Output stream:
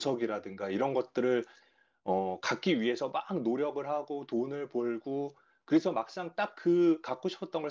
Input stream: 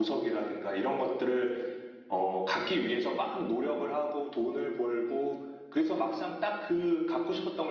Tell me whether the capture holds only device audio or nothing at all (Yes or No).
Yes